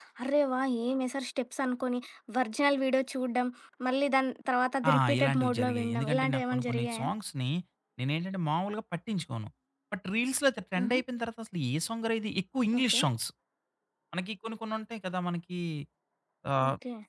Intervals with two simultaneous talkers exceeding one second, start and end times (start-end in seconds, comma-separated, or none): 4.9-7.1